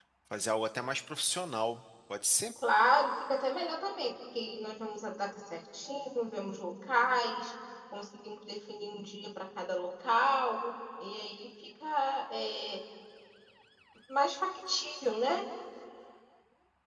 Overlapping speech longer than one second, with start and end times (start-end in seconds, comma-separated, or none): none